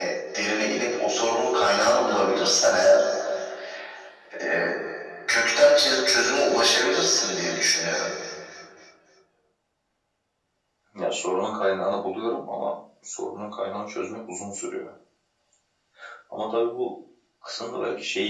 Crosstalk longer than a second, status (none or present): none